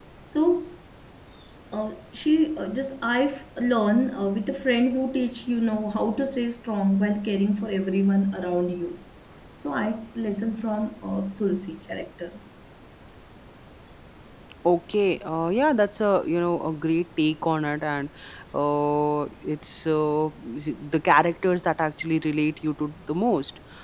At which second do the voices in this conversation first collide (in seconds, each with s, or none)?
none